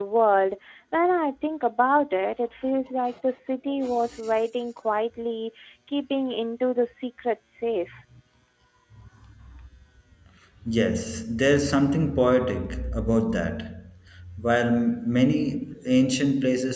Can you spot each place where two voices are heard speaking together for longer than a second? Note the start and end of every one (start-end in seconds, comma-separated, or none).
none